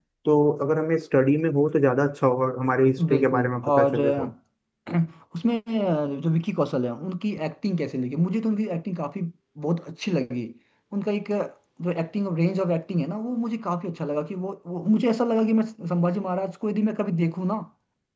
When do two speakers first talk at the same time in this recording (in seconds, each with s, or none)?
3.0 s